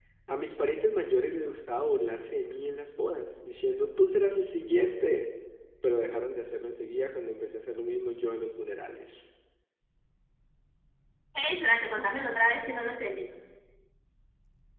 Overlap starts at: none

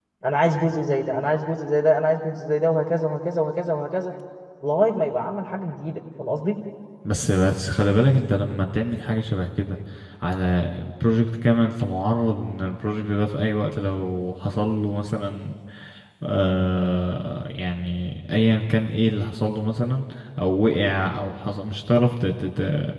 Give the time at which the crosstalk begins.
none

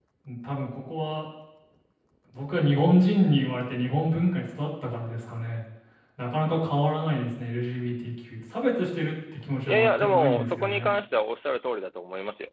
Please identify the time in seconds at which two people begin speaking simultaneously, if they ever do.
9.7 s

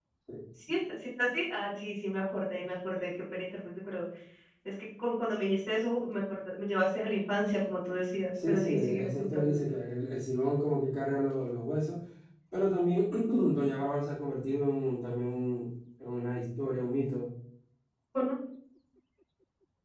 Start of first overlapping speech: 8.3 s

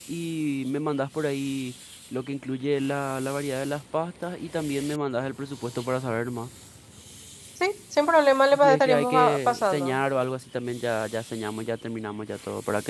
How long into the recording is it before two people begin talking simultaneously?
8.5 s

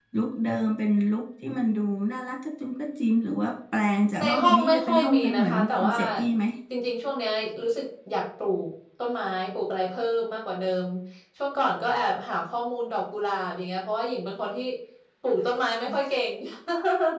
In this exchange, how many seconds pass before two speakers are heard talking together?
4.2 s

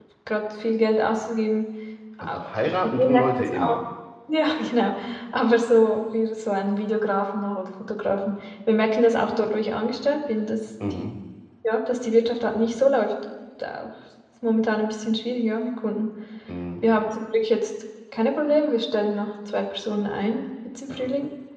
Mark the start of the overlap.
2.2 s

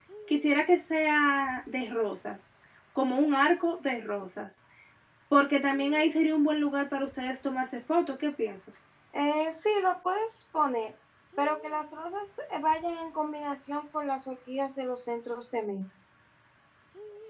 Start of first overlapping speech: none

